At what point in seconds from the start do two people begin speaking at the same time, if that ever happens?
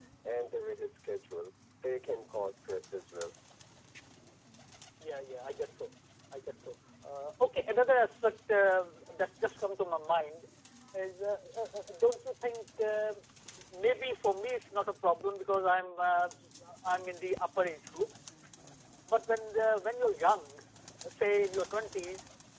none

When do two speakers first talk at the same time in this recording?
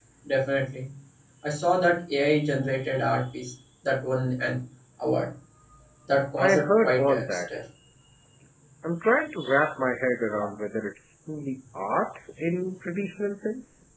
6.4 s

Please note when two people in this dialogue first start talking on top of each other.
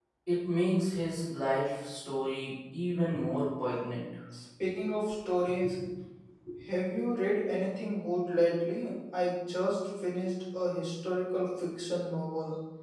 none

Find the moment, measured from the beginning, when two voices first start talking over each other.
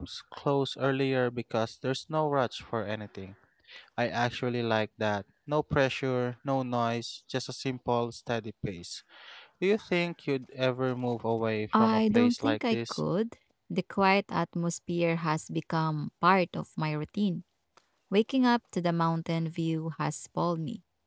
11.7 s

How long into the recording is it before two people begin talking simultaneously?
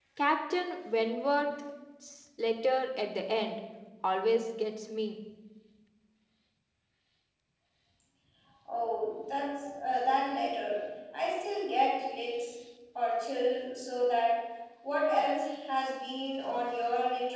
none

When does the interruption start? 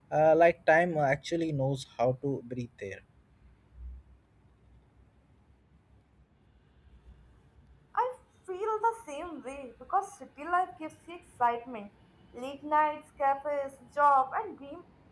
none

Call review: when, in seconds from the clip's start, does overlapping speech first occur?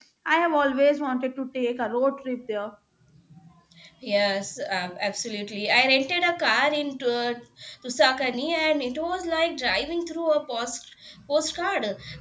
none

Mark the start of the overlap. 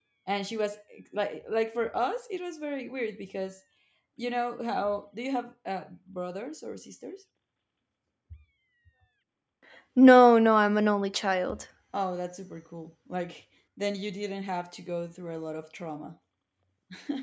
none

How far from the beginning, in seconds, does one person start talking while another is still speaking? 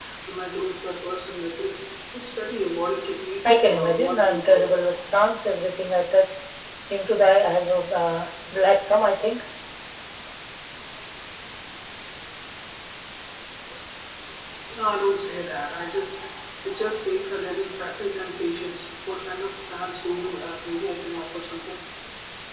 3.4 s

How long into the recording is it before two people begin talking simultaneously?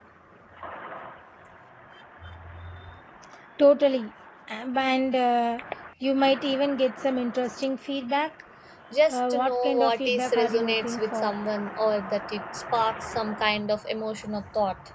9.1 s

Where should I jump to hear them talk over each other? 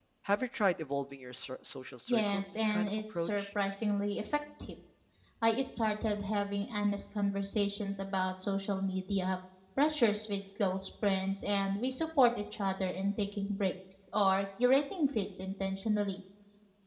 2.1 s

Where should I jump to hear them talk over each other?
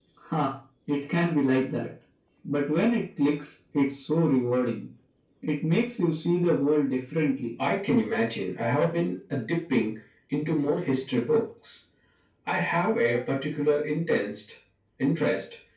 none

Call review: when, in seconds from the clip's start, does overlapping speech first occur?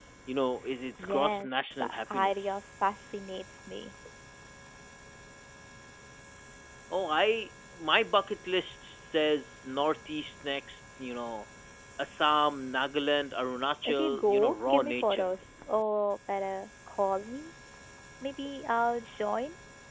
1.0 s

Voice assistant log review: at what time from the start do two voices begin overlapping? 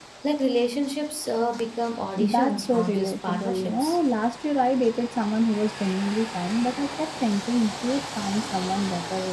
2.2 s

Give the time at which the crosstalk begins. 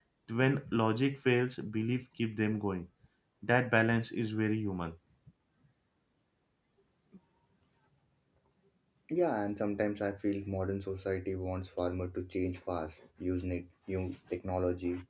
none

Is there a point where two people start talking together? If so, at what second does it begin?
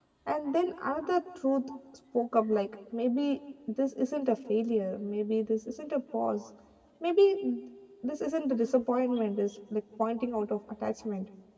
none

